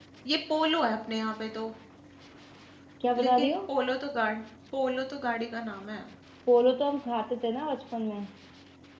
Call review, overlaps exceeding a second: none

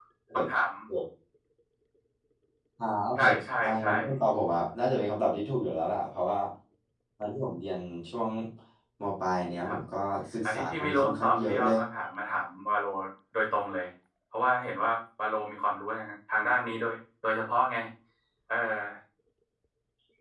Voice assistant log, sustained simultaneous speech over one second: present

